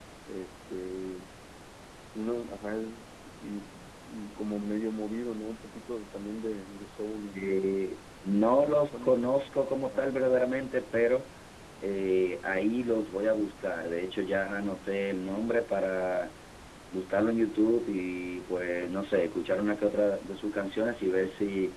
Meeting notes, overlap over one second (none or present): none